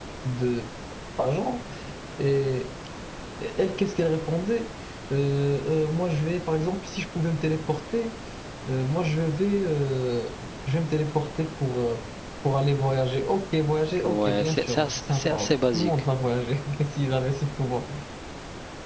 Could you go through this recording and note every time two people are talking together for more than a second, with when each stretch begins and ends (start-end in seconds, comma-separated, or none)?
14.0-16.0